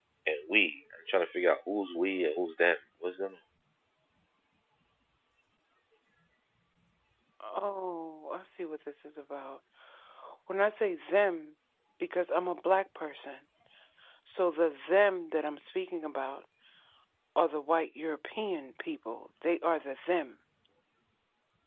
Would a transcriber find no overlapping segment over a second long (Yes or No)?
Yes